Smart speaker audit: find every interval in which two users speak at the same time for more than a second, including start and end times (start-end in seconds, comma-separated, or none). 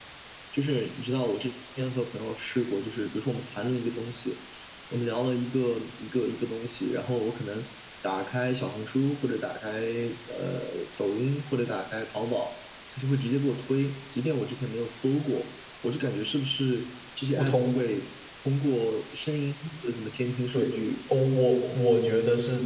none